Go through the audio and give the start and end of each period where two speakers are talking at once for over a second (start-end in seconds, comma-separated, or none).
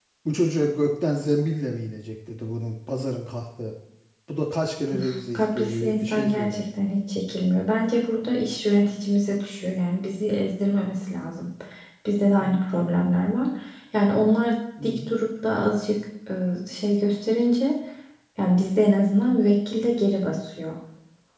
5.3-6.6